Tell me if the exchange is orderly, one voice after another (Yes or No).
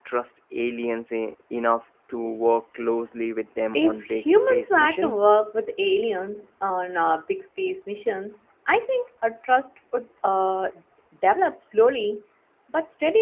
No